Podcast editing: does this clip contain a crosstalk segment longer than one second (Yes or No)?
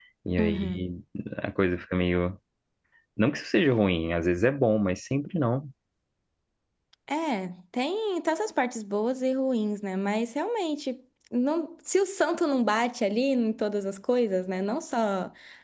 No